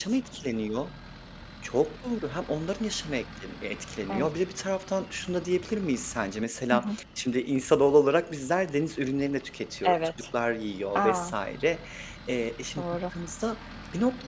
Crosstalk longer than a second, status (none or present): none